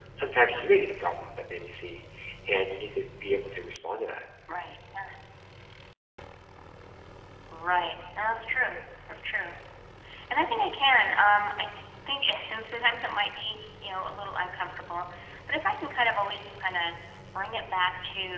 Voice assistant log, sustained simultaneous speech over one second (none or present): none